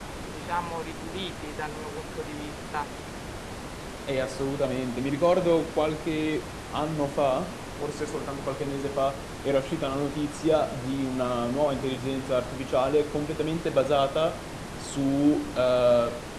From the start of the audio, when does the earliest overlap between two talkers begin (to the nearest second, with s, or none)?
none